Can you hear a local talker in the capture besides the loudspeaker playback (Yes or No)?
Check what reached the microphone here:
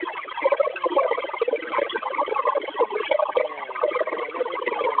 Yes